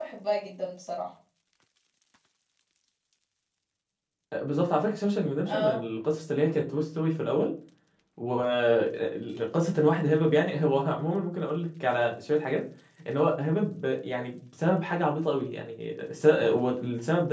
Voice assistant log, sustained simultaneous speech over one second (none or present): none